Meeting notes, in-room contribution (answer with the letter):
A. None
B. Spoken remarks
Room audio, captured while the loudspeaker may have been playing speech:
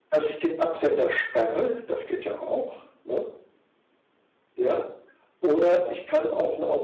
A